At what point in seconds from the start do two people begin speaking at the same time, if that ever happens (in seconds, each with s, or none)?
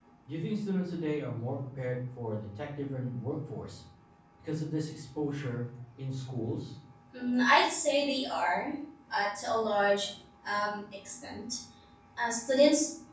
none